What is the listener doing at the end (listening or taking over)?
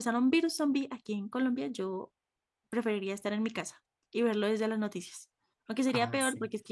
listening